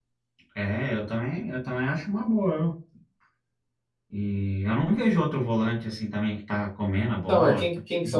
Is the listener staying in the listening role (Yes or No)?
No